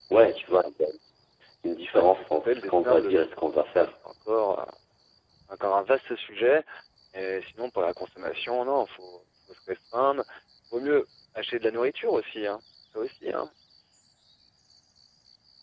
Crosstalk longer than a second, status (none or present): present